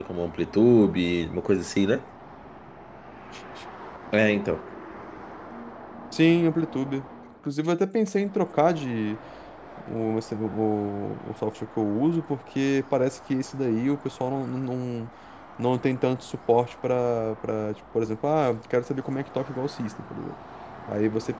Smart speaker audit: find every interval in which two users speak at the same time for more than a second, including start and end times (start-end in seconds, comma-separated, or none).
none